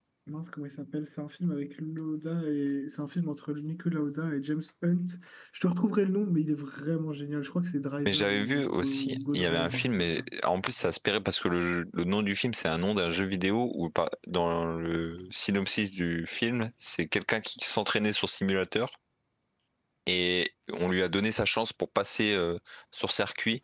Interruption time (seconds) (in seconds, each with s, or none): 8.0 s